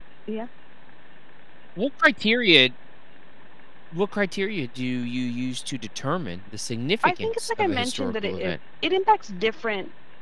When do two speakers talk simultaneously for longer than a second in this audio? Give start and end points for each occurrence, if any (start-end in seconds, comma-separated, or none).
7.2-8.6